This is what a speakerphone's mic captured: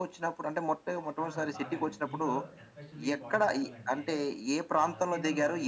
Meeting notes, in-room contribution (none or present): present